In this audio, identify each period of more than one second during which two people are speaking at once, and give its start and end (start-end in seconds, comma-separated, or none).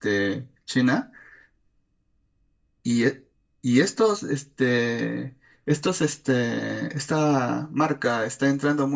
none